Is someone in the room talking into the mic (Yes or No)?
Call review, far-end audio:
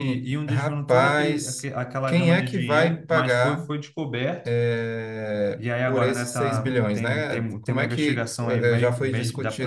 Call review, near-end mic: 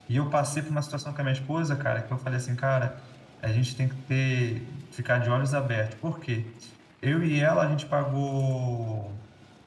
Yes